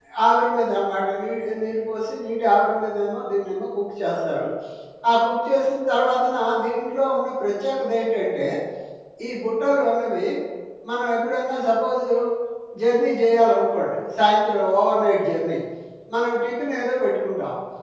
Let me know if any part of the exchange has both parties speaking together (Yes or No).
No